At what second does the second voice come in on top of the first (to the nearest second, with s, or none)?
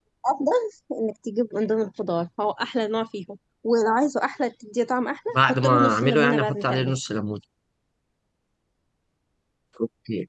5 s